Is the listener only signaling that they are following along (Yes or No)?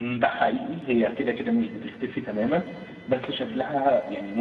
Yes